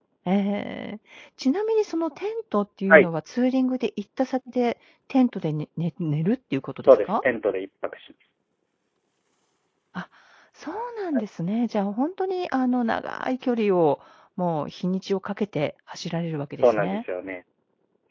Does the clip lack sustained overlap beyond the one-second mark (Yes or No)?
Yes